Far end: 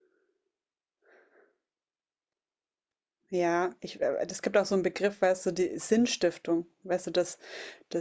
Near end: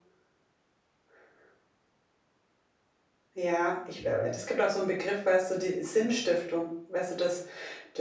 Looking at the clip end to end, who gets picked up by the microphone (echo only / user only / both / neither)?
both